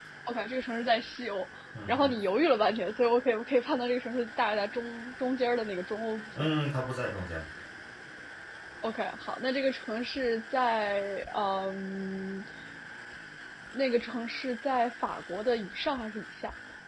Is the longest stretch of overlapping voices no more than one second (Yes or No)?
Yes